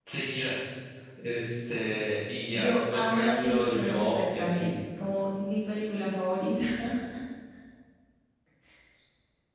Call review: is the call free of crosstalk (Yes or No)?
No